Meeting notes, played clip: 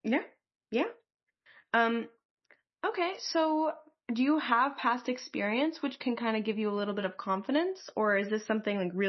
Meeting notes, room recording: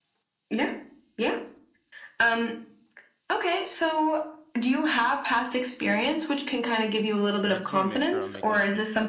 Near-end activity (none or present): present